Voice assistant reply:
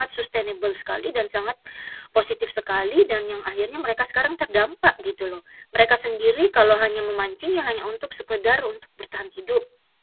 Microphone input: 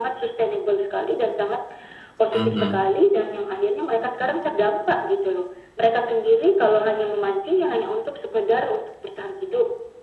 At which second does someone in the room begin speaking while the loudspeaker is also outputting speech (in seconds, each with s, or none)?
2.3 s